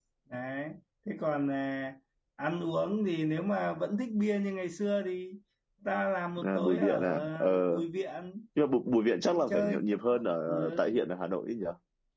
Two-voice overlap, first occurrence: 6 s

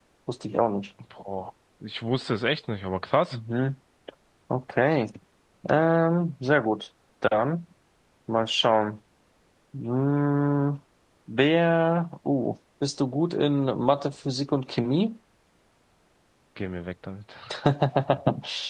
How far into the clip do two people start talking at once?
none

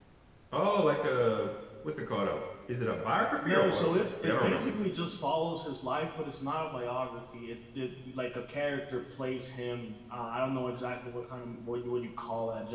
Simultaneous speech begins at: 3 s

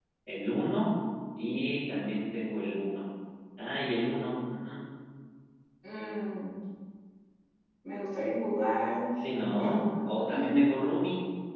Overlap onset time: 10 s

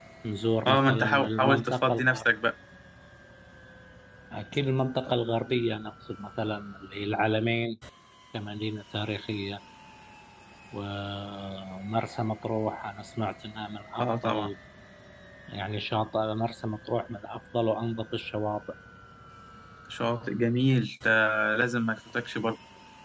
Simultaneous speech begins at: 1 s

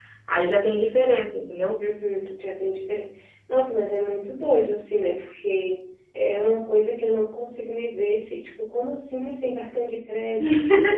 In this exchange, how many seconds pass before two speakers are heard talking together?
none

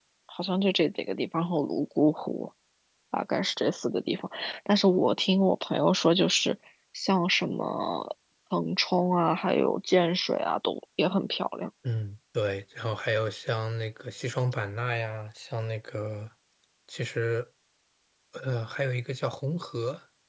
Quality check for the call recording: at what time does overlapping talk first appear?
none

